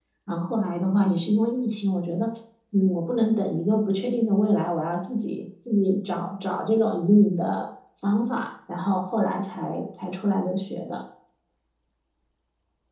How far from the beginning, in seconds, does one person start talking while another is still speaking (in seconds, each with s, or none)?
none